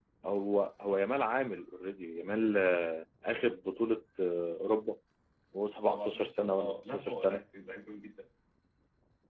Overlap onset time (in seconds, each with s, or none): 5.9 s